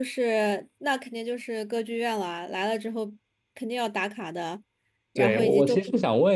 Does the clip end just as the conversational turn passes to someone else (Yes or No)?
Yes